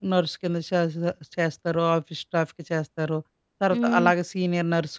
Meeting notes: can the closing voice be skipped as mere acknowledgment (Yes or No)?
Yes